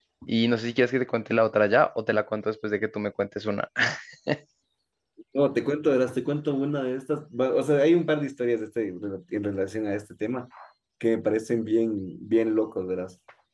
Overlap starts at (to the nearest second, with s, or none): none